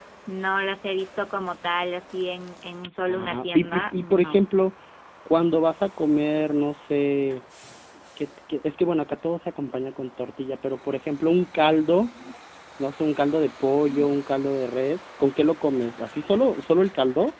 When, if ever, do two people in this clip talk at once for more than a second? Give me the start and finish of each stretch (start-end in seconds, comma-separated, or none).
3.1-4.4